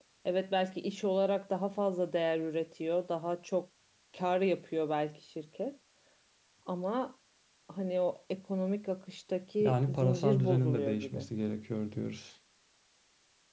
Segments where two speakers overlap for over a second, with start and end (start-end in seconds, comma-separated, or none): 9.6-11.2